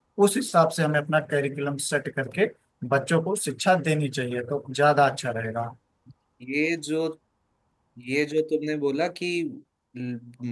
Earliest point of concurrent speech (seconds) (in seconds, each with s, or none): none